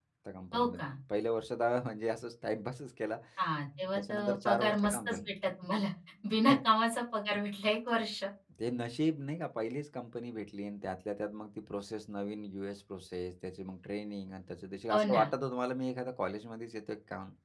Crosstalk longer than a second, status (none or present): present